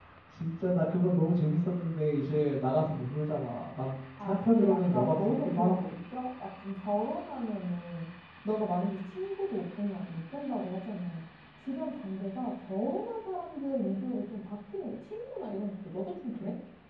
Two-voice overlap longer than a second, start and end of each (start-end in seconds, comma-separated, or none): 4.2-5.9